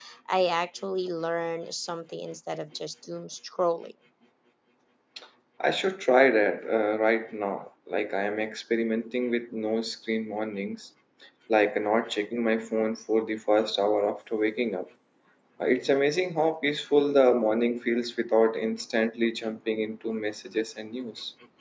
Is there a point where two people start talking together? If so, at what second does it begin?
none

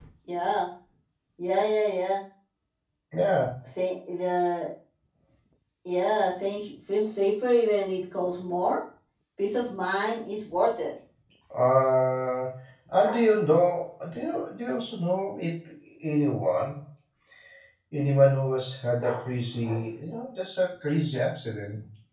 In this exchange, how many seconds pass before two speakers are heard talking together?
none

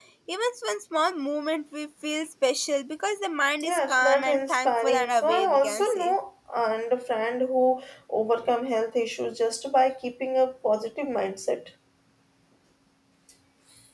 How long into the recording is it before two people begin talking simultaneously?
3.6 s

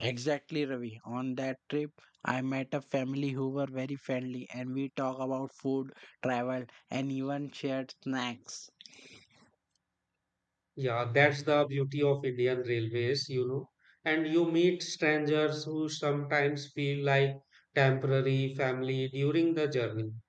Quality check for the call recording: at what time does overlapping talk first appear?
none

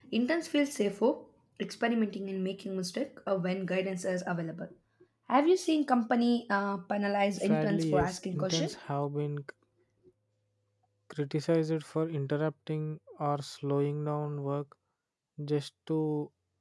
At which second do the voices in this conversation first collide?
7.4 s

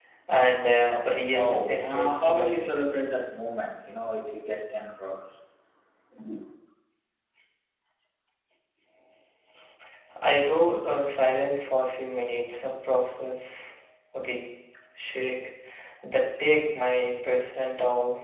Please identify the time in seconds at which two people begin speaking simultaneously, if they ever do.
1.3 s

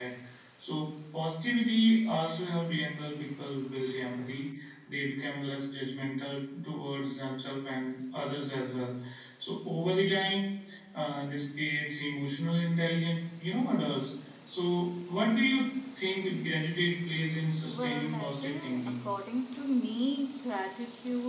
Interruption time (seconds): 17.6 s

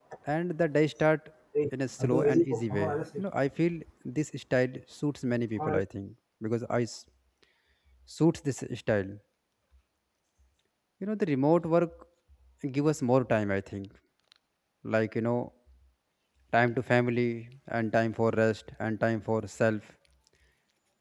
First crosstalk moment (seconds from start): 2.0 s

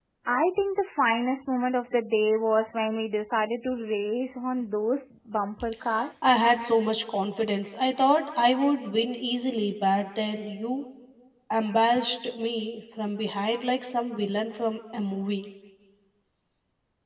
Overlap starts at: none

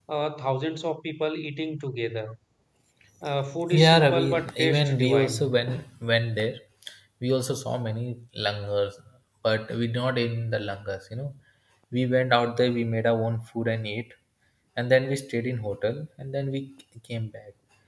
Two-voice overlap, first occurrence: 3.7 s

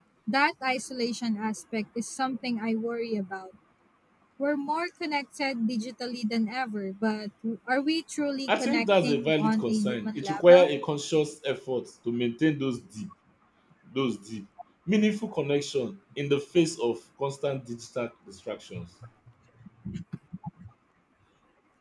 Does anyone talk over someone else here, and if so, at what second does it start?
8.5 s

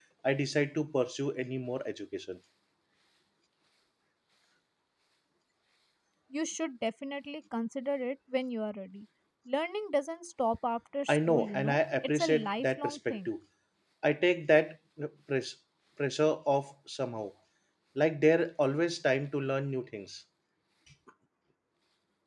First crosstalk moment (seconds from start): 11.1 s

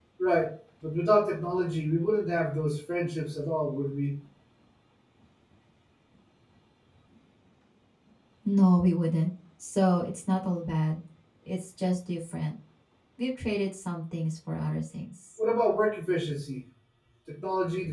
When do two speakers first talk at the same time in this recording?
none

